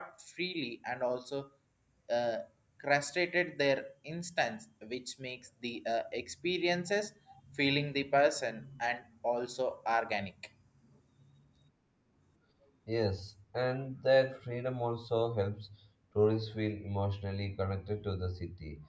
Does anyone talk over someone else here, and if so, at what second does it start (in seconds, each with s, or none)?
none